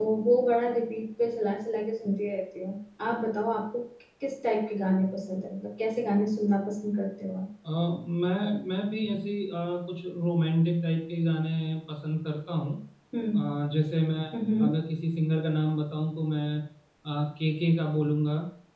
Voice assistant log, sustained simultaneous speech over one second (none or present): none